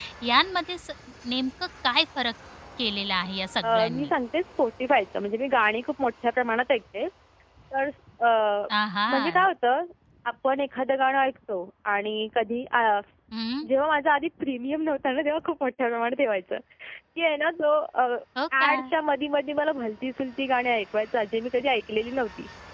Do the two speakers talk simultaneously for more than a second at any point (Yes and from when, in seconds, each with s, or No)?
No